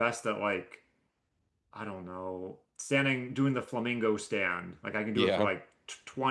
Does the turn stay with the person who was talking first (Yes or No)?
Yes